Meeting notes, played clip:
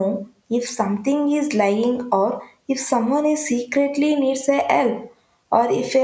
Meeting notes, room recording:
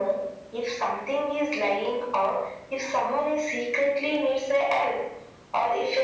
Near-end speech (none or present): none